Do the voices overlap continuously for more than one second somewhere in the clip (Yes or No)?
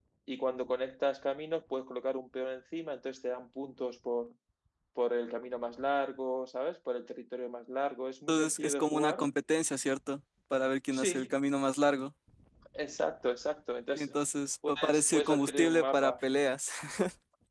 Yes